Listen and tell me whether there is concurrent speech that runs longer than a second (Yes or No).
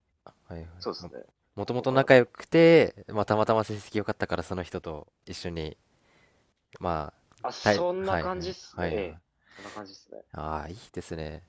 Yes